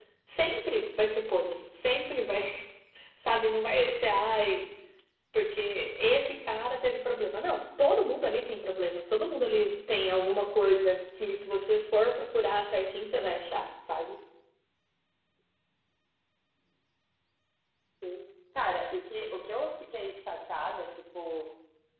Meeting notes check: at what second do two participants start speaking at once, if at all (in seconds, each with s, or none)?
none